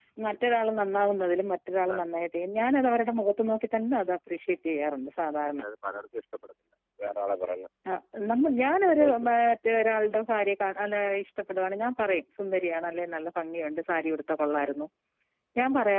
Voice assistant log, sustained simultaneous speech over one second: none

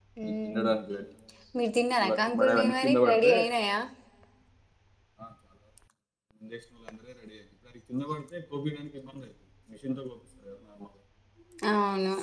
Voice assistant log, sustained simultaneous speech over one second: present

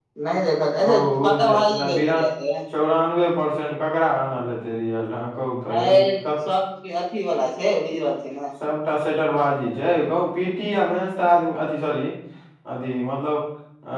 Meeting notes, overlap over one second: present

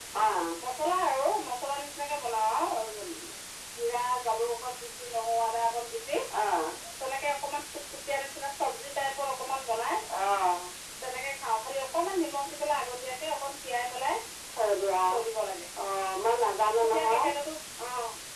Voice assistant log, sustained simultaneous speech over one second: none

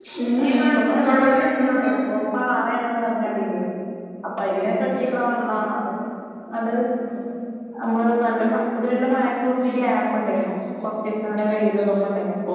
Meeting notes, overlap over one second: present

